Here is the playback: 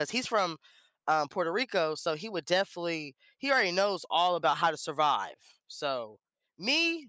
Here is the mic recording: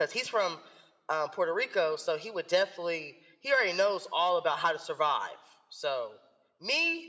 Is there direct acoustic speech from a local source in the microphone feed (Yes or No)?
No